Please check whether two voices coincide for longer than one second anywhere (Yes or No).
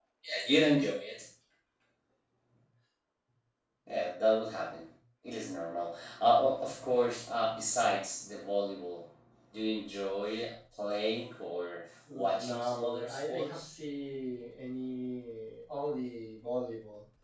Yes